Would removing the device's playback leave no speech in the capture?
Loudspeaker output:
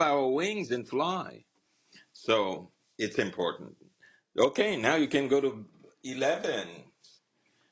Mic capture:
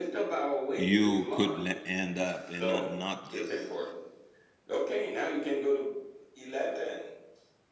No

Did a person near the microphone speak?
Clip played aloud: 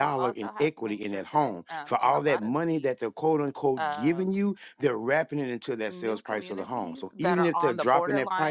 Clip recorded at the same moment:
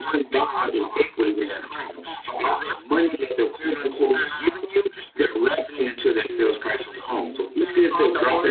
No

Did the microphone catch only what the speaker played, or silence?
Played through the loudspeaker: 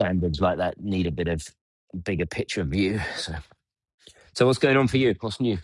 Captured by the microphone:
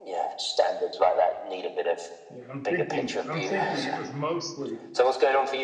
No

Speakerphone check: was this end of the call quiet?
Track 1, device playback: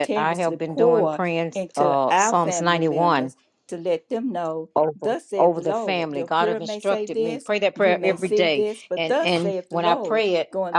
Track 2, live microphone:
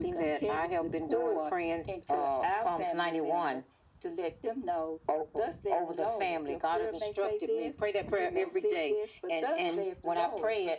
Yes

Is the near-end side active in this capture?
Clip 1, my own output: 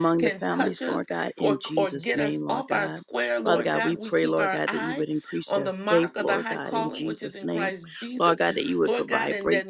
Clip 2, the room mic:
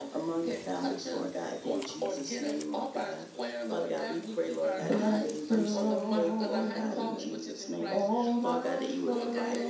Yes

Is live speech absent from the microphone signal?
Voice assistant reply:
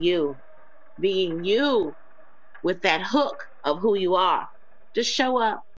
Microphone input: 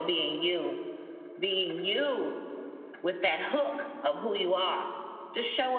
Yes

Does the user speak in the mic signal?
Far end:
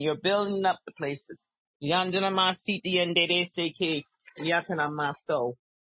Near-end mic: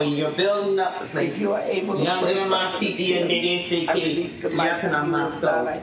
Yes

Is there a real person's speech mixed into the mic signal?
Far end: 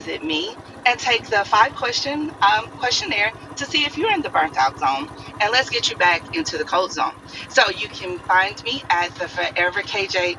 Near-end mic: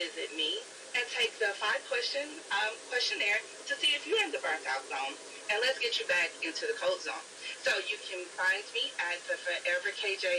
No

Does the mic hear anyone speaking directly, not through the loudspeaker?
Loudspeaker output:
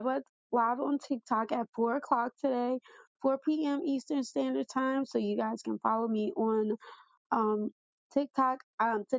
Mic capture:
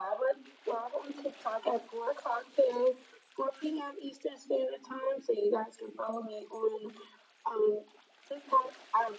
No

